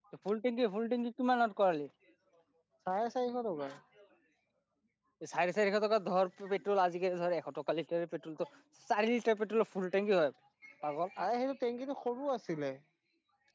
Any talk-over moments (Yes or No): No